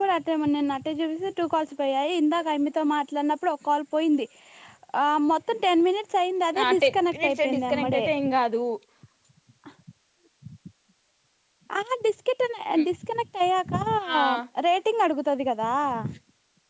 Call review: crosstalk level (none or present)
present